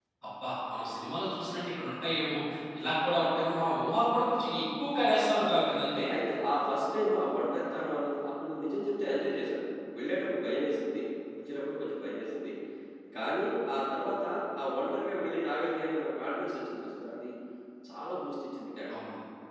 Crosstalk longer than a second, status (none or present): none